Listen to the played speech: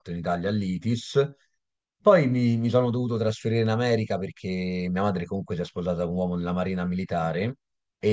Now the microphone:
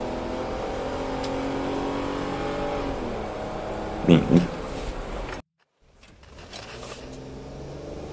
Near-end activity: present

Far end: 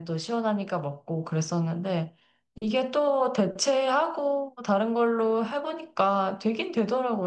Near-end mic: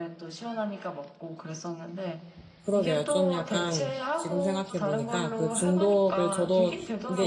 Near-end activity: present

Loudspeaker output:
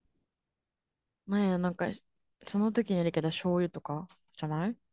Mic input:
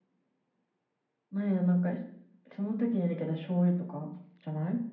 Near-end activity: none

